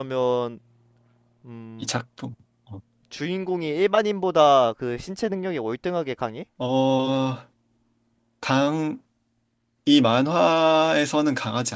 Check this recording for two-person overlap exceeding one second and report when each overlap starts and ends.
none

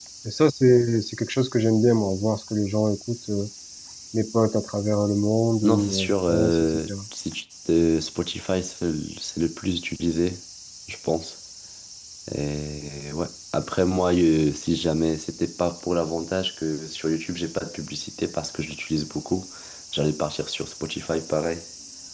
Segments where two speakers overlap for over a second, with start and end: 5.6-6.9

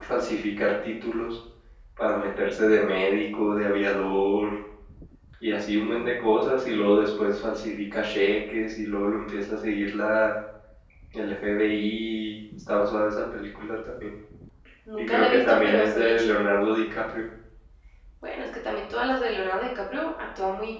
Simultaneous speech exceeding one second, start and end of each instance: 15.0-16.4

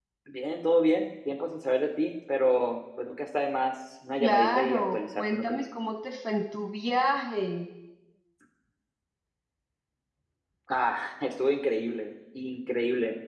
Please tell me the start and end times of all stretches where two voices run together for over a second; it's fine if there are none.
4.2-5.6

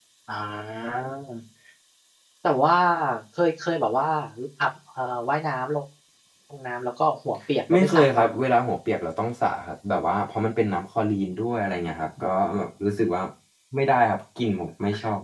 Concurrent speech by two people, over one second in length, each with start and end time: none

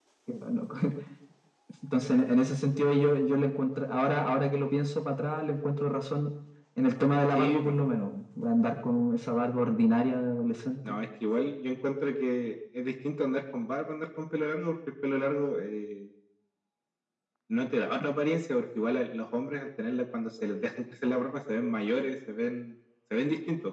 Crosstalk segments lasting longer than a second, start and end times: none

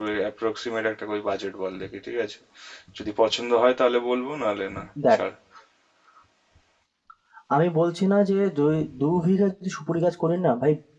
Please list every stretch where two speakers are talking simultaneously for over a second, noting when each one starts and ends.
none

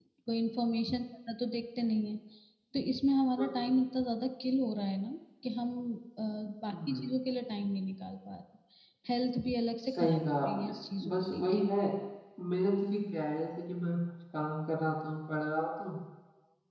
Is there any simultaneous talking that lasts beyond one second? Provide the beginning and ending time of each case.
9.8-11.7

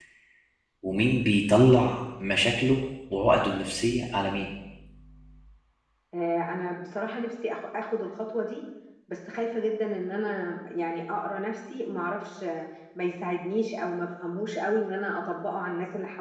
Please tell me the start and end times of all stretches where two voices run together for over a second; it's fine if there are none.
none

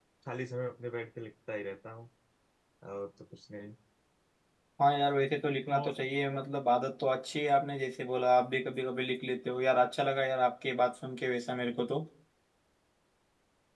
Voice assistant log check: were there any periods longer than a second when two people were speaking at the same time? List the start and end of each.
none

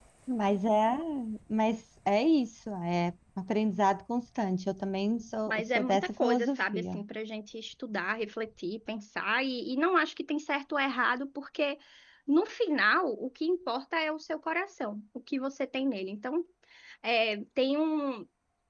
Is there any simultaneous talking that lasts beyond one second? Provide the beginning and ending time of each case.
5.5-7.0

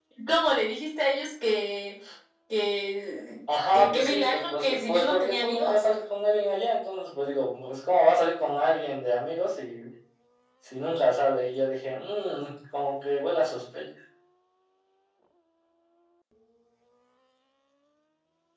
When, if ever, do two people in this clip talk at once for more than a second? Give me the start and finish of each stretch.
3.7-5.7

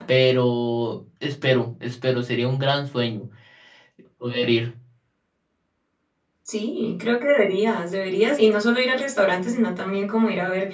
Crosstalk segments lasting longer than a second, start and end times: none

